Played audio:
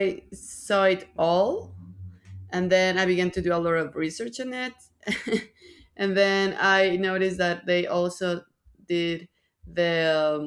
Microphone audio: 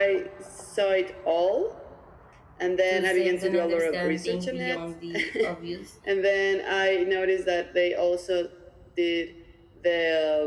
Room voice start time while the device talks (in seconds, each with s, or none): 2.9 s